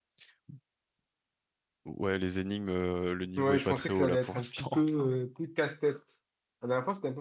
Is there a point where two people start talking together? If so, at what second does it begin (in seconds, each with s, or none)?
3.4 s